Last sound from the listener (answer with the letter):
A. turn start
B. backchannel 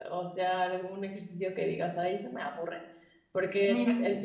B